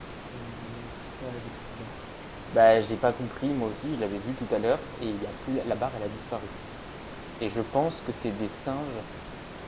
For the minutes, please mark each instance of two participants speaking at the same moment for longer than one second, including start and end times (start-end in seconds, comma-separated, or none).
none